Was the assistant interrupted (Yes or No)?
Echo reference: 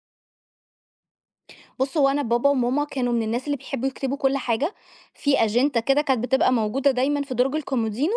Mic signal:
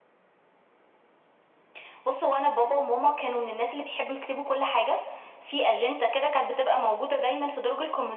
No